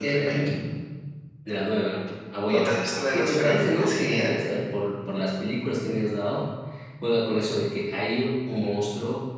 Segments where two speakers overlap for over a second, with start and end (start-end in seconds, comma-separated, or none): 2.5-4.4